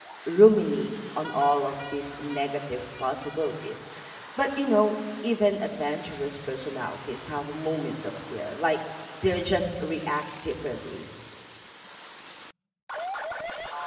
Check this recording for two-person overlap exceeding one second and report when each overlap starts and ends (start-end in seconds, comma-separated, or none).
none